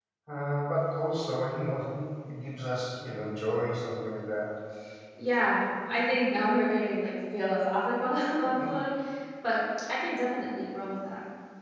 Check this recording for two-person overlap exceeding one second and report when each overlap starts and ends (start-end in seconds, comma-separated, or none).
none